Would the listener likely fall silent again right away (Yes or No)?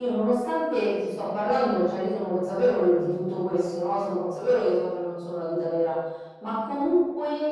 Yes